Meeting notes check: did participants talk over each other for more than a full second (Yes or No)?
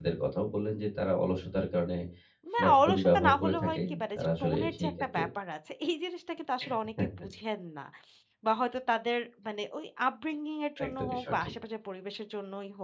Yes